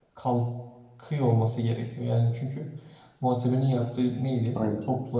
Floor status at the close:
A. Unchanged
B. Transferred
A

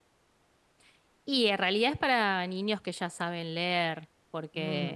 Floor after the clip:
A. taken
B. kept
B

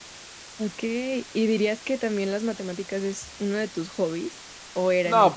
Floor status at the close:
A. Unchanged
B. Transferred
B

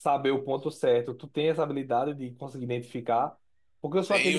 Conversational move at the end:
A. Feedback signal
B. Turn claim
A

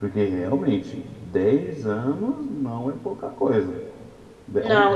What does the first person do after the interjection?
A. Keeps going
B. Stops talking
B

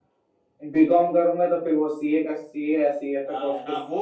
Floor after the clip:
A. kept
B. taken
B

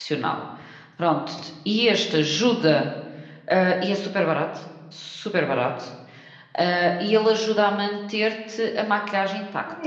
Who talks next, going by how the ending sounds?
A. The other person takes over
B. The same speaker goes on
A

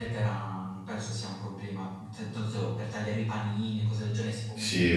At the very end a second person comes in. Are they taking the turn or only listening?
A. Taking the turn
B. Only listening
A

